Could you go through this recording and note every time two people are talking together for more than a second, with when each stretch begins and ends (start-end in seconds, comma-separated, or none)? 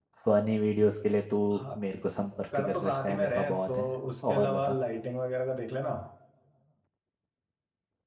2.5-3.9